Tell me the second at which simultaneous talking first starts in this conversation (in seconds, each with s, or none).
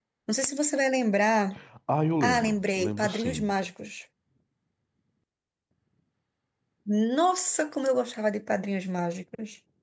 2.2 s